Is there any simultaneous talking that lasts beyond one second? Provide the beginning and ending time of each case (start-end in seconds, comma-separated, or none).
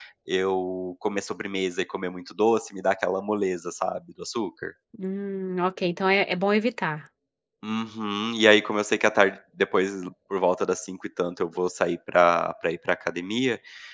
none